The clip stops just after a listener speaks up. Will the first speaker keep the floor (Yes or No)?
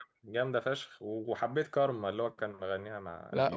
No